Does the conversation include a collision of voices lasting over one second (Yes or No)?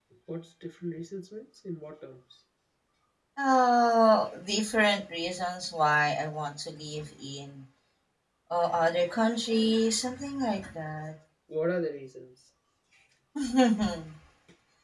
No